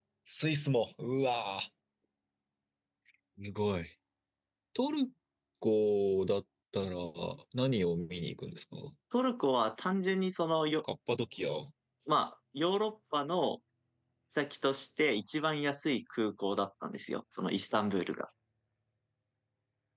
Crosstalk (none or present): none